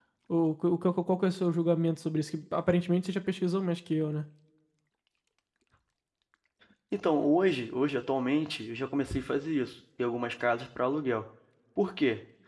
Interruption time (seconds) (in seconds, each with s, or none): none